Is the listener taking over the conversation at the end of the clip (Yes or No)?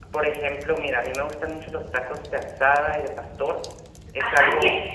Yes